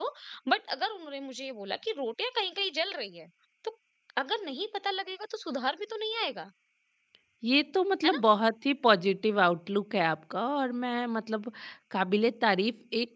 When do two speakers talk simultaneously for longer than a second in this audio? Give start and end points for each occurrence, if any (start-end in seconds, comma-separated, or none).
none